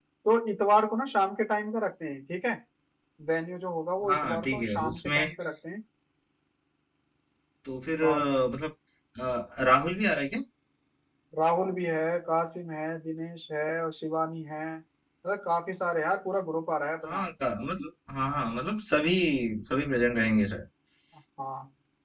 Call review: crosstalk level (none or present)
present